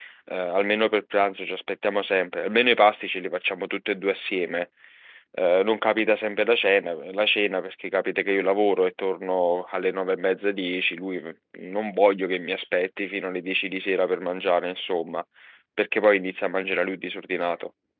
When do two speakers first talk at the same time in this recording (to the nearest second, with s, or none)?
none